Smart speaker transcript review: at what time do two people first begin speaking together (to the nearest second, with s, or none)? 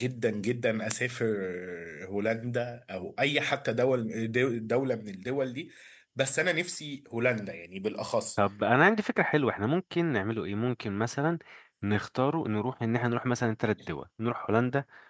none